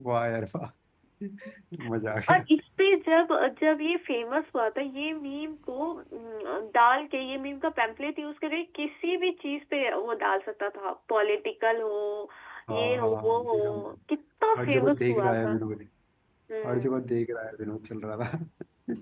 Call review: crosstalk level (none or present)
present